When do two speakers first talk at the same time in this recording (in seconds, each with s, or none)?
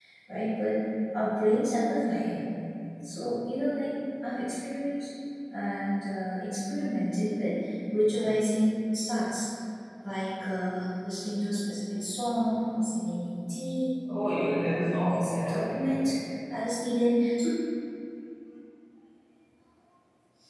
14.0 s